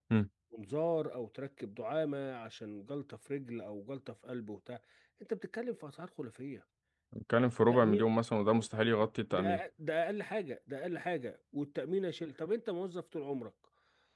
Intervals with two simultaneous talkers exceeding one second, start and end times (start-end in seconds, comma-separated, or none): none